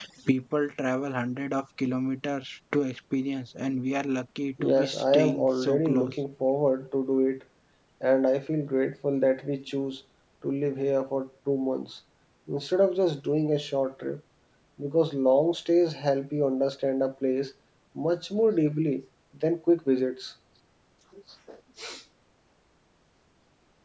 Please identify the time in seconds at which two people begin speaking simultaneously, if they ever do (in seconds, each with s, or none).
4.6 s